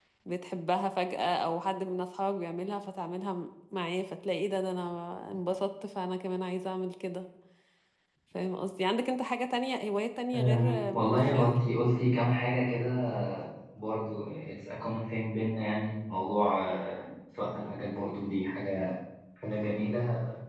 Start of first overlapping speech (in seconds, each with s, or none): 10.3 s